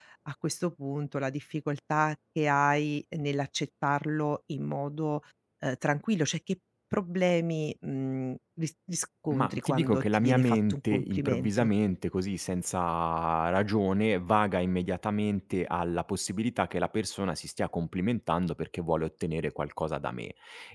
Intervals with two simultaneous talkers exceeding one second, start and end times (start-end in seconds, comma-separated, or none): 9.3-11.7